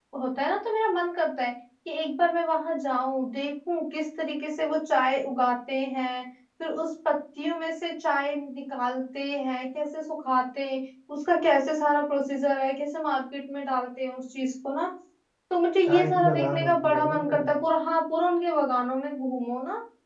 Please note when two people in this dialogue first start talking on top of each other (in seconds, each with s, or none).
15.8 s